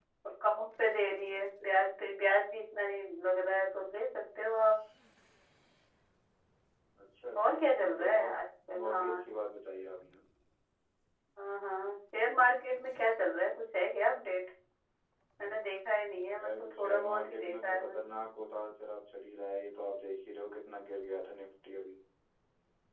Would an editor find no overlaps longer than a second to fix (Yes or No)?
No